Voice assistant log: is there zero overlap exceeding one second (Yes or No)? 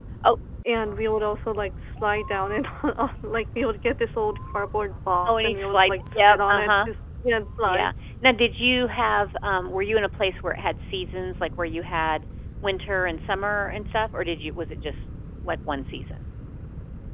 No